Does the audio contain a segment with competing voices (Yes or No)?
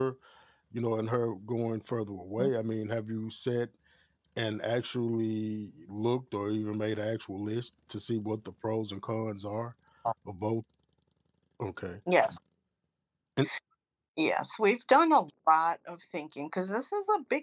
No